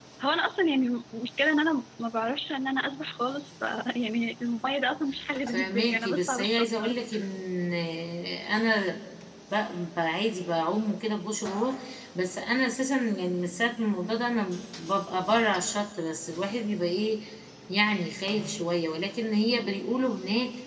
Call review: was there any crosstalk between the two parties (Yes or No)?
Yes